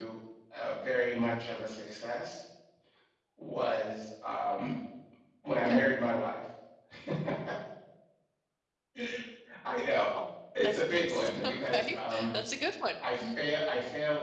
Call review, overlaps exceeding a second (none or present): present